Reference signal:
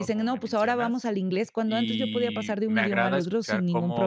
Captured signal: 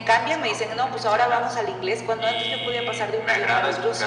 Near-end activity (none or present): none